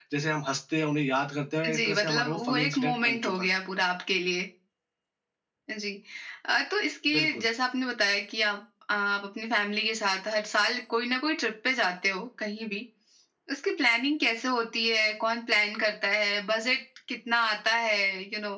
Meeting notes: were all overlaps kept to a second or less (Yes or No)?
No